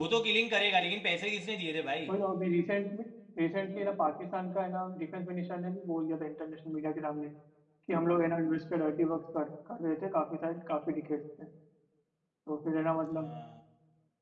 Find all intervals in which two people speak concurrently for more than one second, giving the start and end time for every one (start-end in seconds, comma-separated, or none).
none